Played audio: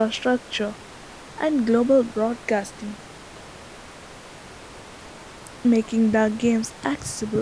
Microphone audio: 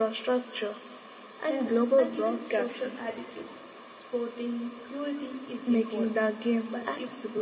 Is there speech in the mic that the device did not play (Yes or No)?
Yes